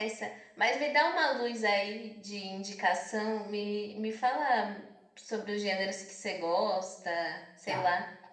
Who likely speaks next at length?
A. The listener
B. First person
A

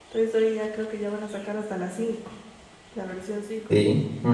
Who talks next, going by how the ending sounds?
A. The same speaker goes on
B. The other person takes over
A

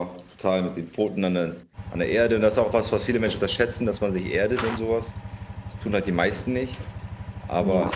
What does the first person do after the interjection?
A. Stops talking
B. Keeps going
B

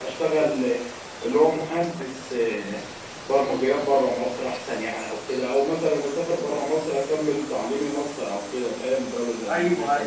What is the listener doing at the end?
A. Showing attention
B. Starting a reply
B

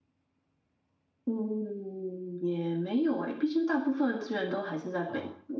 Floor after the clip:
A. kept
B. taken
B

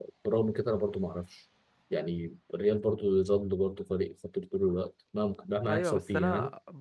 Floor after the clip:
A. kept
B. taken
B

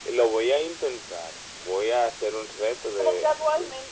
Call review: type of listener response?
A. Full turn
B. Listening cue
A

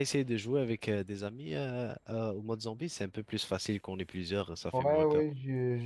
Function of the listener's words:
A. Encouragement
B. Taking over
B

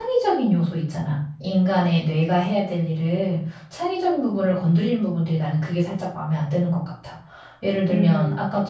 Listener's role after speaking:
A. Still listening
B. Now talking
A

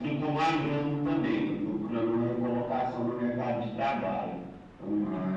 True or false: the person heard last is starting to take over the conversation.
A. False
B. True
B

